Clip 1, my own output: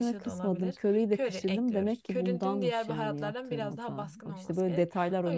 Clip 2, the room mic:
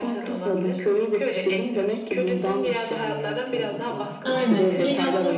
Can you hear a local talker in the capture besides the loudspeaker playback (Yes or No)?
Yes